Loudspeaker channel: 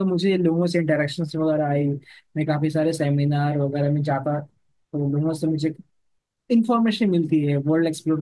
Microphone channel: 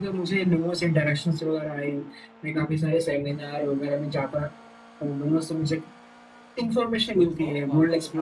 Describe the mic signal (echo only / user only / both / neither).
both